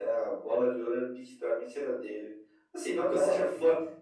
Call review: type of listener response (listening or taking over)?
listening